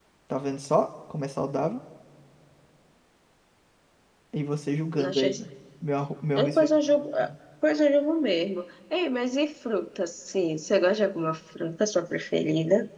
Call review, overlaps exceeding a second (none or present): none